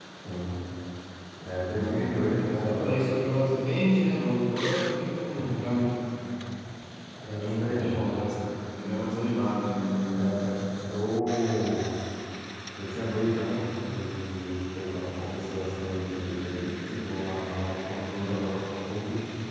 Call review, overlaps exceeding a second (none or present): present